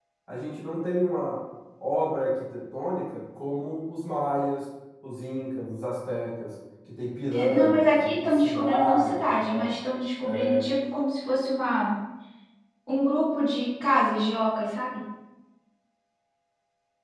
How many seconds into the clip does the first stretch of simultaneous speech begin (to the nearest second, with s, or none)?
7 s